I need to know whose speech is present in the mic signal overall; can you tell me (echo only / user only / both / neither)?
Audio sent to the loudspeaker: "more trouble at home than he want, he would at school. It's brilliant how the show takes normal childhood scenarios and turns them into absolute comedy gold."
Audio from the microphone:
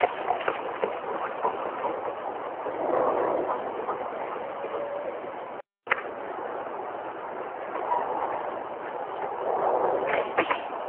neither